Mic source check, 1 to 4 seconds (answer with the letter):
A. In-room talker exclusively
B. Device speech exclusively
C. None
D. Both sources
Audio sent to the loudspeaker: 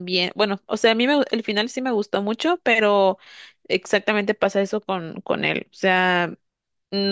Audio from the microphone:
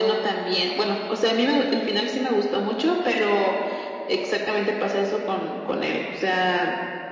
B